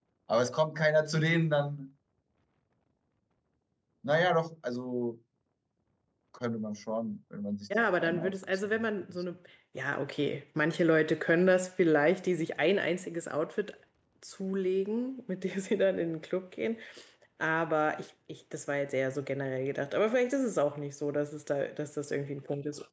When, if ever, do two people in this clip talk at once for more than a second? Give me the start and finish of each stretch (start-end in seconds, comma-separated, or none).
8.0-9.2